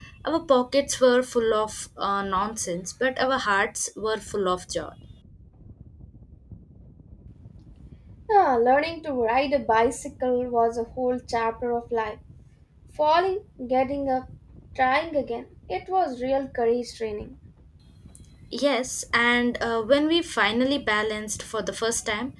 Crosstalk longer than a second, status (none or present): none